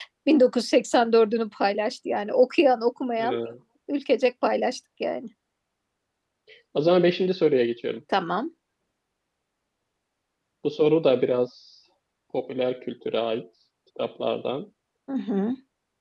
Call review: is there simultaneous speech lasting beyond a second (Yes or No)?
No